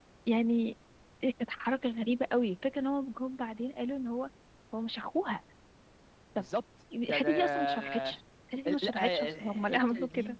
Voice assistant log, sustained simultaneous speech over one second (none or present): present